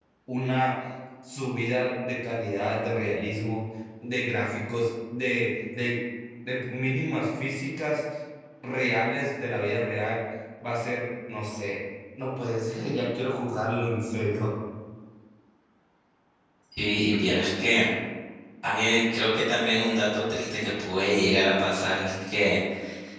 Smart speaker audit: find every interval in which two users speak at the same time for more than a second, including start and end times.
none

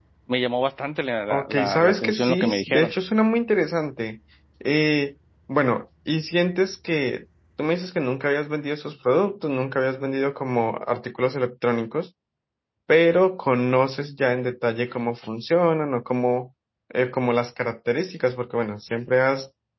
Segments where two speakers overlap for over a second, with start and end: 1.3-2.9

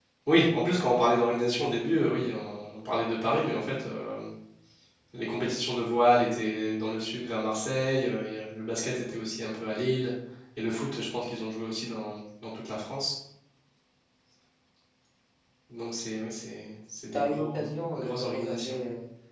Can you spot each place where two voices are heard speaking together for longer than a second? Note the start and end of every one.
17.1-18.8

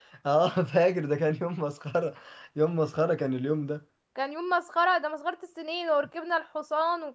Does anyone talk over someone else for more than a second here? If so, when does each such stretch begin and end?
none

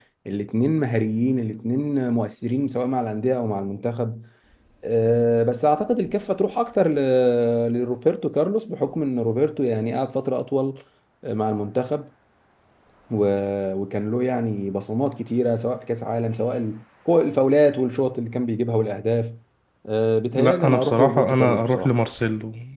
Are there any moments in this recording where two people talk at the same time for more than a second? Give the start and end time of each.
20.4-21.9

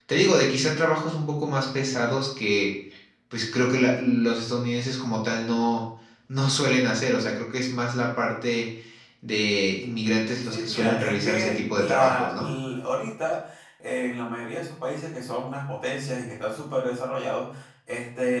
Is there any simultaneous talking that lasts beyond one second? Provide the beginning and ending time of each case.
10.4-12.6

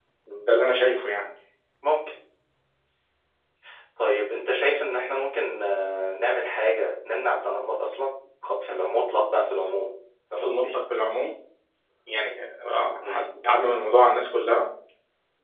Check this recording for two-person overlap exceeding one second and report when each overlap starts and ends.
none

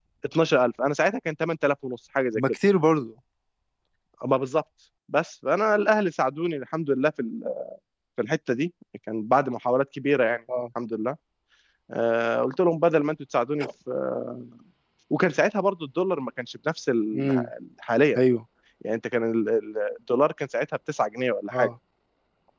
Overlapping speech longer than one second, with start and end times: none

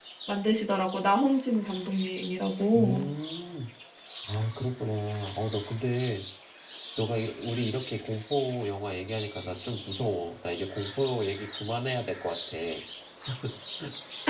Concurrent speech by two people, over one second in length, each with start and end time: none

